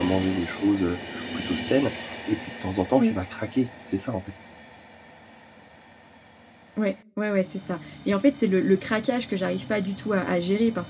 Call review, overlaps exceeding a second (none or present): none